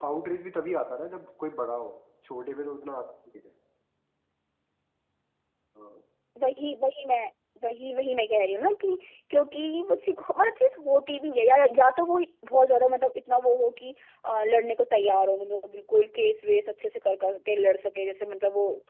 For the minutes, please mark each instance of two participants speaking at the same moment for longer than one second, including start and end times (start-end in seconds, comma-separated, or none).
none